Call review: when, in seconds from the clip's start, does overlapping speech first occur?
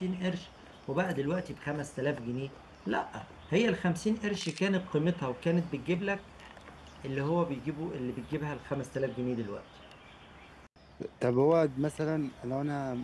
none

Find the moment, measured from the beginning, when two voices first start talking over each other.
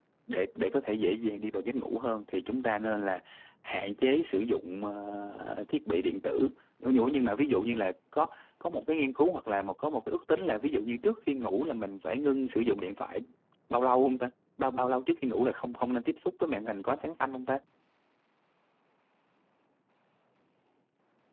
none

